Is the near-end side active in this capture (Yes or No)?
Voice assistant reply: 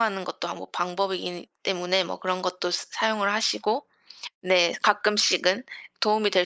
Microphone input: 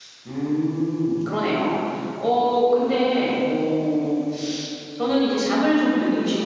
Yes